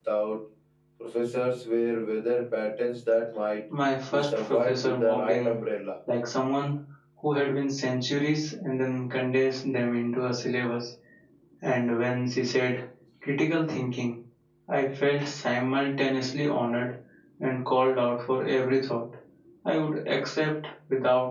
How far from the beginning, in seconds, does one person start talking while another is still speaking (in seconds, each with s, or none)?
4.1 s